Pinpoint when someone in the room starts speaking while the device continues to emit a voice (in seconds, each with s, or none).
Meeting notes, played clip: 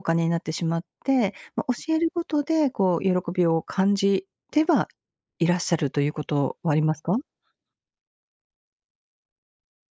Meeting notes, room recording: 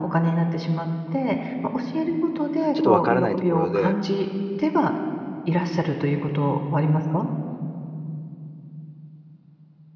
2.7 s